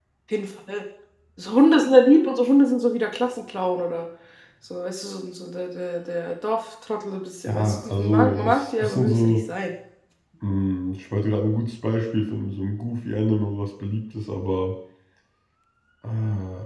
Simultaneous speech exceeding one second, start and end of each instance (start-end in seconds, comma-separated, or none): 7.5-9.3